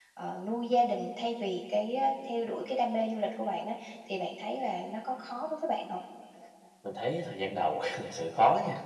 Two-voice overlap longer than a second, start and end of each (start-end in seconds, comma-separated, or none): none